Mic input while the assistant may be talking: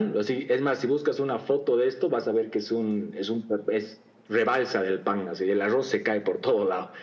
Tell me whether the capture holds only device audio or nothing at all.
Yes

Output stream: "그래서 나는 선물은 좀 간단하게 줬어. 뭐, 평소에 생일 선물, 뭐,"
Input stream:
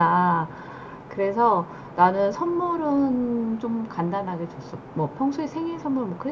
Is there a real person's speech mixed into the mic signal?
No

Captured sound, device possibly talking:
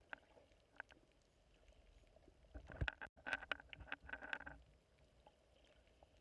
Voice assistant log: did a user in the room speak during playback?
No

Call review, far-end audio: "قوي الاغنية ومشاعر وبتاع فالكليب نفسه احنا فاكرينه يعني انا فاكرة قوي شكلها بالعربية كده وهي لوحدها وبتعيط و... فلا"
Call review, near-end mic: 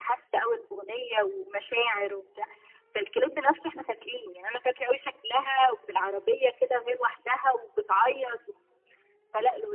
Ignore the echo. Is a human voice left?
No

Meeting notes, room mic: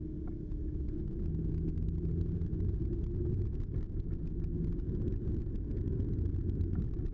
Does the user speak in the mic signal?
No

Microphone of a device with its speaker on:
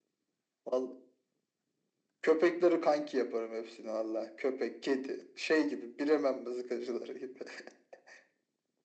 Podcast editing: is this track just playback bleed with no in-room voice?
Yes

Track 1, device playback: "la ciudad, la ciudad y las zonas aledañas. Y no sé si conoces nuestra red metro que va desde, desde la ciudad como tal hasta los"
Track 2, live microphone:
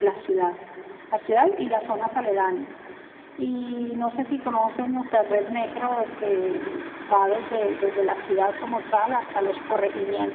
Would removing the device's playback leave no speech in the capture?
Yes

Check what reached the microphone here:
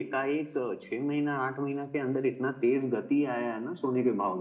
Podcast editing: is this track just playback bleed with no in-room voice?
Yes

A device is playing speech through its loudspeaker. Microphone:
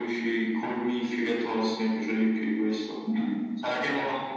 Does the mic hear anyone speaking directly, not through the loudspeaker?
No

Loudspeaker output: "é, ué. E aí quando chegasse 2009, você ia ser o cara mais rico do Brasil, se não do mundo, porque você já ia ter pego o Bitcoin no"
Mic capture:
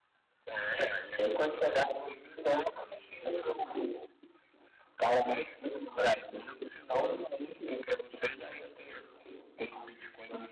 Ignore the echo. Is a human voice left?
No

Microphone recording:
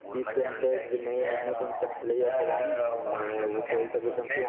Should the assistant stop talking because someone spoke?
Yes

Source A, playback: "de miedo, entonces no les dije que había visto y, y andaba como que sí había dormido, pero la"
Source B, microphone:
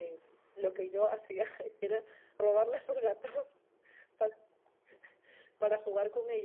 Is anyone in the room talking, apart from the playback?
Yes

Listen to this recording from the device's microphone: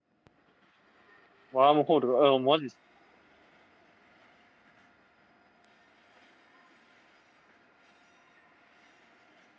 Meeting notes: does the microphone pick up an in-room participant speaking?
Yes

